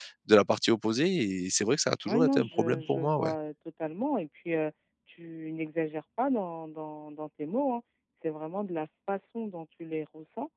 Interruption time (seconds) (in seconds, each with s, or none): 2.0 s